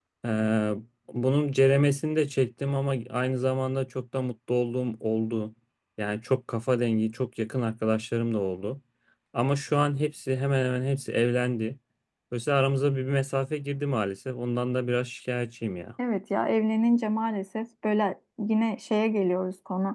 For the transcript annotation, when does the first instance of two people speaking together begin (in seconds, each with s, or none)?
none